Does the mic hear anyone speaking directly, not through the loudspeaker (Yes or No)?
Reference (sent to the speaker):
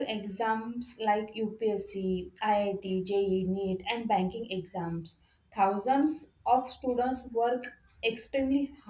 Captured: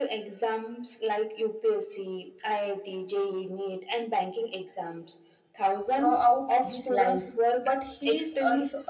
Yes